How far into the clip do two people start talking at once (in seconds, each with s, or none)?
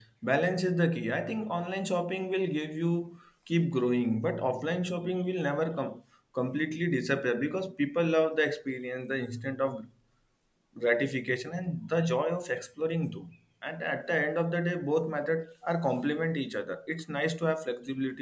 none